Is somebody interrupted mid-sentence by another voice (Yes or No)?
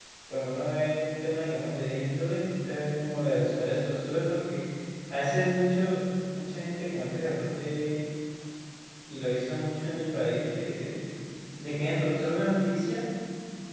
No